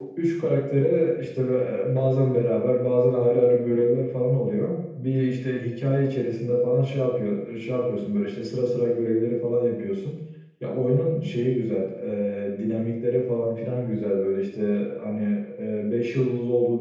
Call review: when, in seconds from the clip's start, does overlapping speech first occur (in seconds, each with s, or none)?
none